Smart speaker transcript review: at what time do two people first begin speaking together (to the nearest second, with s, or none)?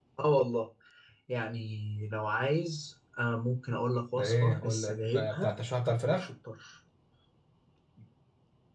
4 s